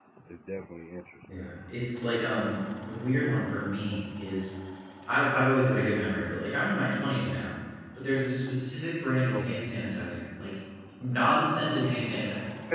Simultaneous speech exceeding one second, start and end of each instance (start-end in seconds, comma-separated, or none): none